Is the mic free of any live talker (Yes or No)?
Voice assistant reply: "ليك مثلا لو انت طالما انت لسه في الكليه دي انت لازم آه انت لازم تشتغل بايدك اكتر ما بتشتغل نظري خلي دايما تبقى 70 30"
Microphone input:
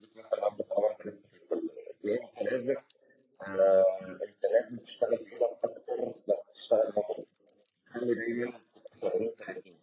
Yes